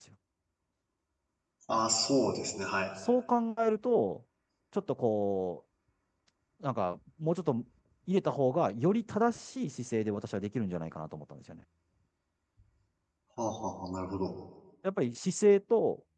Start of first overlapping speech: none

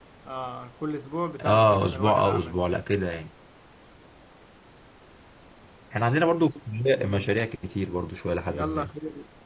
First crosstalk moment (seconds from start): 1.4 s

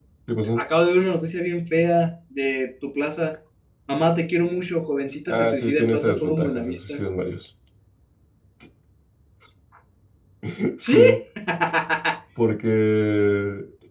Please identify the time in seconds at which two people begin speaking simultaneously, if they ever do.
5.3 s

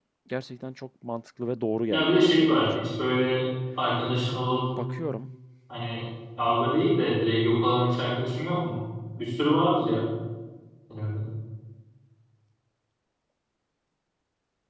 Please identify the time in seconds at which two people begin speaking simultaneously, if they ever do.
1.9 s

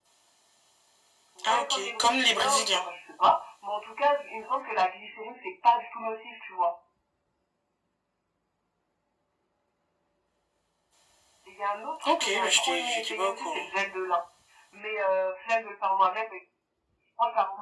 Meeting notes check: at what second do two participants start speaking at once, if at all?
1.4 s

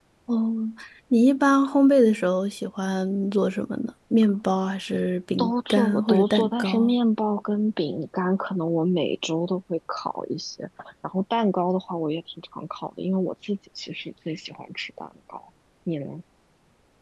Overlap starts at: 5.4 s

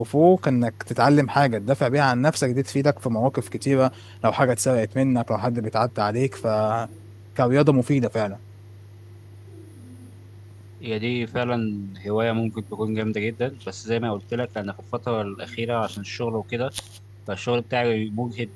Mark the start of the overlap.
none

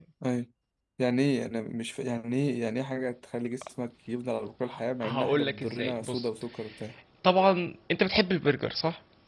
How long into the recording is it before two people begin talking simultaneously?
5.0 s

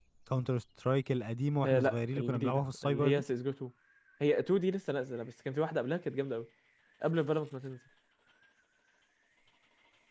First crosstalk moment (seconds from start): 1.6 s

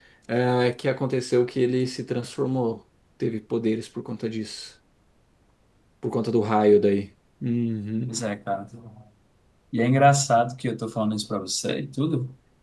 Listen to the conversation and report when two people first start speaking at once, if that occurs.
none

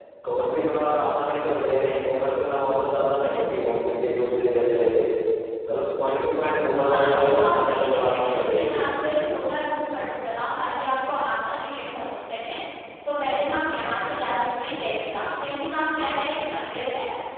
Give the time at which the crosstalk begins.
6.8 s

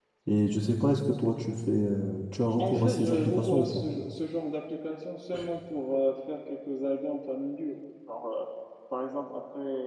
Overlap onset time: 2.6 s

